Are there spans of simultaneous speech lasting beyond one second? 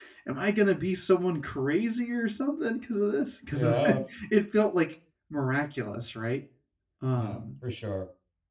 No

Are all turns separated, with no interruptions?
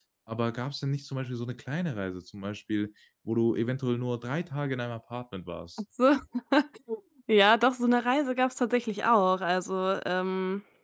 Yes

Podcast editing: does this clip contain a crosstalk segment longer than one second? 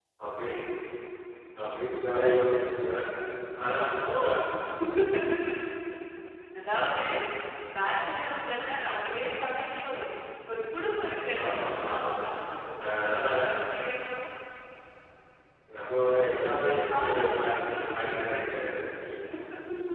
Yes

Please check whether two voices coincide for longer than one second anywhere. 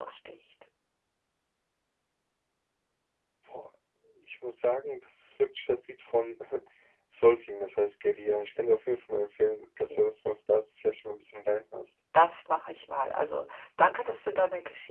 No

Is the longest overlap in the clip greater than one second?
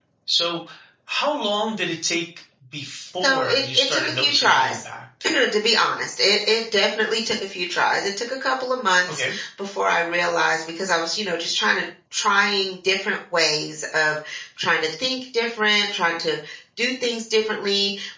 Yes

